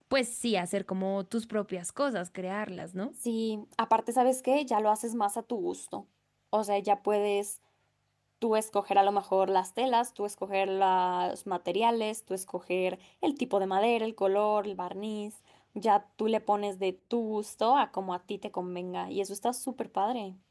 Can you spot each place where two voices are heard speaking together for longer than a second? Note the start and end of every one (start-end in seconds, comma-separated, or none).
none